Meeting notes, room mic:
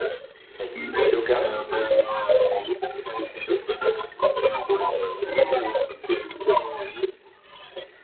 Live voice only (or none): Mais le yoga,